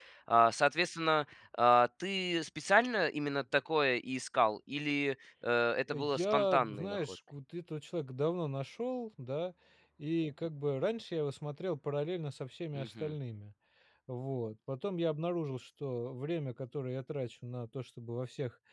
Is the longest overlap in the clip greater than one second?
Yes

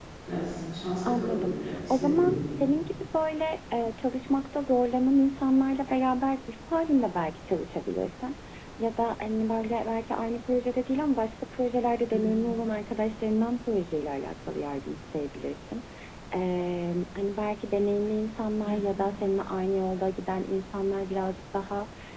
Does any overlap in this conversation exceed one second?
Yes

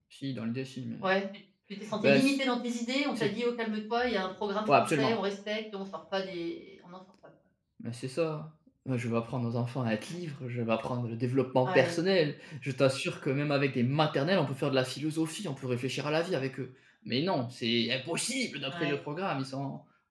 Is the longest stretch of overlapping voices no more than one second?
Yes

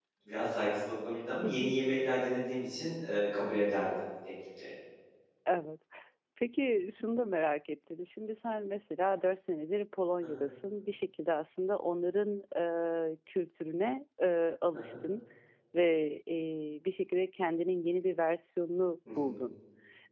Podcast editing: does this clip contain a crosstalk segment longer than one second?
No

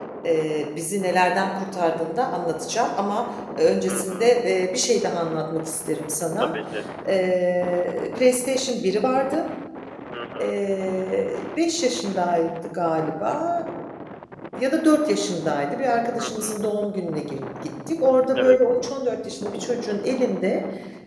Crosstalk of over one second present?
No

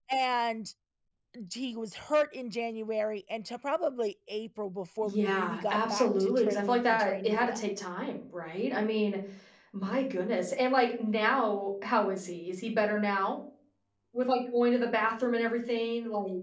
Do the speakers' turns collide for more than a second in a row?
Yes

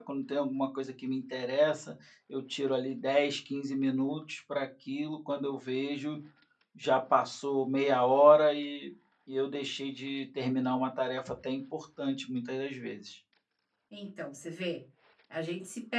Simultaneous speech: No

